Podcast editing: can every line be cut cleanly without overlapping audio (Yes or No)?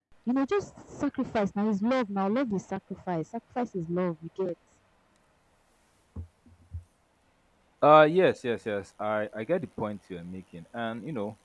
Yes